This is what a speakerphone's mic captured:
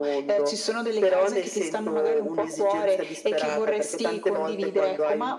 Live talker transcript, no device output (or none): none